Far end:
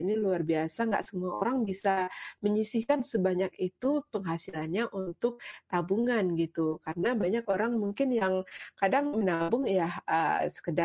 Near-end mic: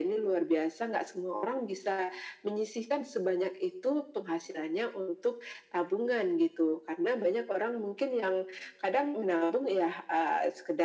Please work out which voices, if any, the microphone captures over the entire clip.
echo only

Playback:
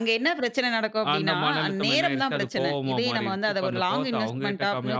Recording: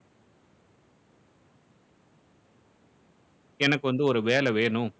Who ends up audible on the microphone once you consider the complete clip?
user only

